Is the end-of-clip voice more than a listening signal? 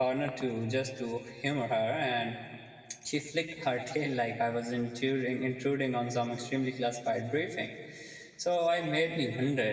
No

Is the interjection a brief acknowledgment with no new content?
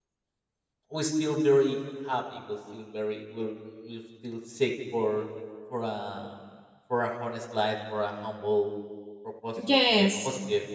Yes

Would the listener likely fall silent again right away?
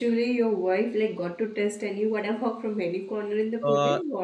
No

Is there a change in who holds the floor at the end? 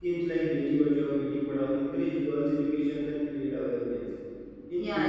No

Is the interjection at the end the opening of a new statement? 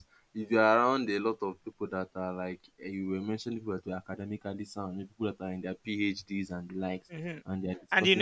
Yes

